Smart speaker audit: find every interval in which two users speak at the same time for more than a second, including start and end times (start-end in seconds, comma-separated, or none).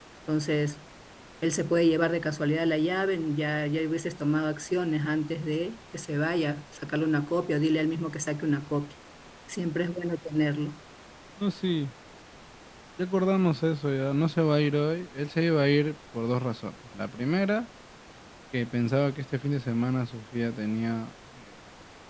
none